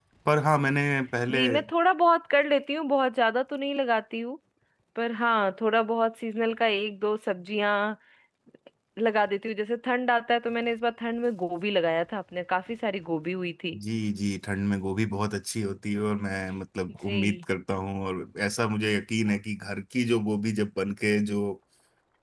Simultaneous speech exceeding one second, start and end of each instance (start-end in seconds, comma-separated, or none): none